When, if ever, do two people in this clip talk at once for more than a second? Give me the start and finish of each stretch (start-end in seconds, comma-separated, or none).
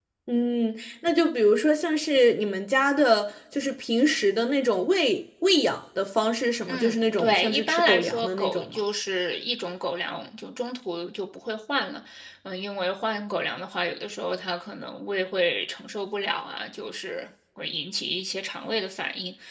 6.7-8.8